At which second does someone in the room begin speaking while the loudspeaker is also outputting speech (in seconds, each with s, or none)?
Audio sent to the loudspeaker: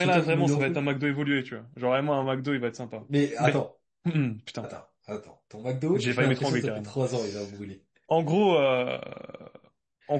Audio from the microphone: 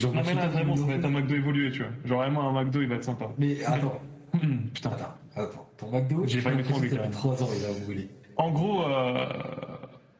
none